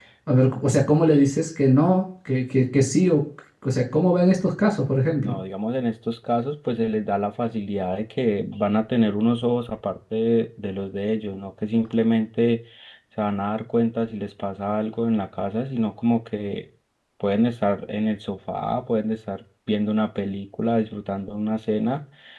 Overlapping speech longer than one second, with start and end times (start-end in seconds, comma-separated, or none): none